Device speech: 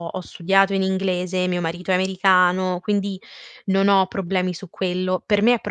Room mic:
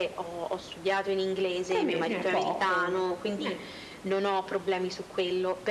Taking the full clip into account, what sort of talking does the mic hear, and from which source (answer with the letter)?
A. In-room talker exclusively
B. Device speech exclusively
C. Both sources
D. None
C